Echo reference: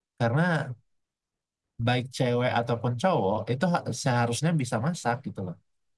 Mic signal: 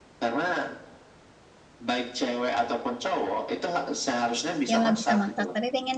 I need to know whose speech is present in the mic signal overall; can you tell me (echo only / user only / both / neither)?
both